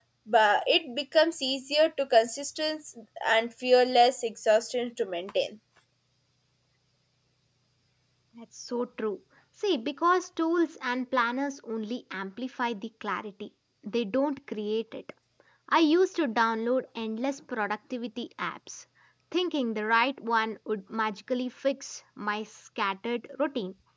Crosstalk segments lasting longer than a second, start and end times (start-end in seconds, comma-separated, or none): none